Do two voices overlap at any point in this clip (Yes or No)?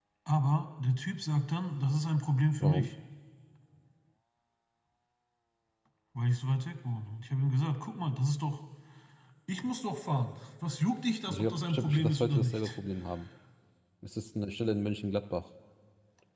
Yes